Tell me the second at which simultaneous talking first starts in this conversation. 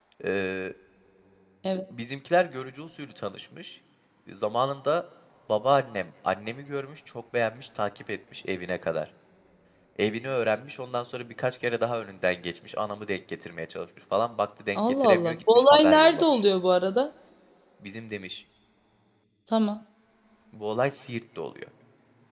14.8 s

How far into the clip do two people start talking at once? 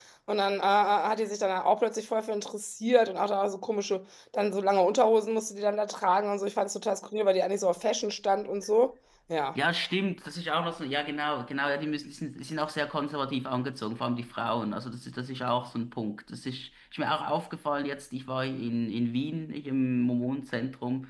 none

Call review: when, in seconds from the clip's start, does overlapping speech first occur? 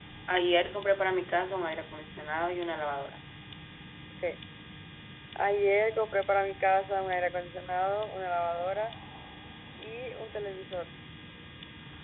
none

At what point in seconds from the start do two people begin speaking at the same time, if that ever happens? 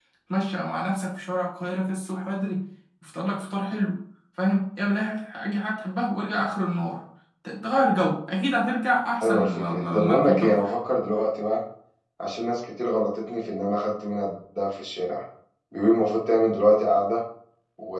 9.2 s

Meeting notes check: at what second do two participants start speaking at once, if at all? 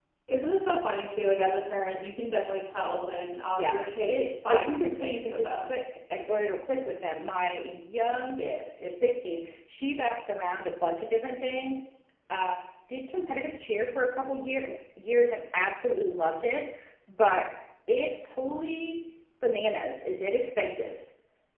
3.6 s

